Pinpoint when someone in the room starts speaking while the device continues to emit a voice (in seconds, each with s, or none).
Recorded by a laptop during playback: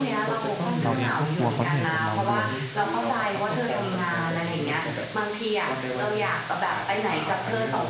0.8 s